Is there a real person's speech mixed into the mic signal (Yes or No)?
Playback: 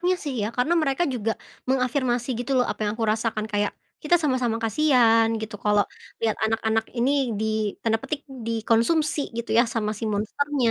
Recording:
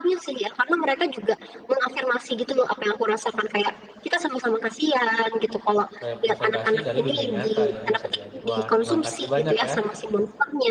Yes